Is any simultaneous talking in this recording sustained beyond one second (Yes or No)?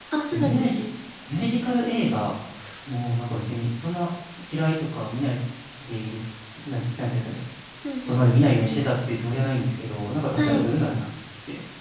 No